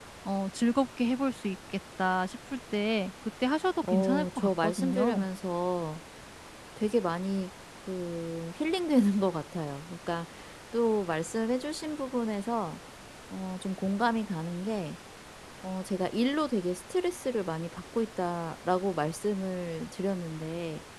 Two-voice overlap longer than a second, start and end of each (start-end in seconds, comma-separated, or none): 3.9-5.2